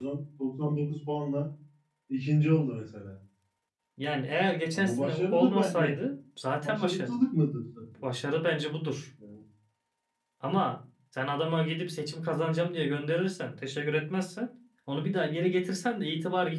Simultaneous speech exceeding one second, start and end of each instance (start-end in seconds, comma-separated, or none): 4.7-6.0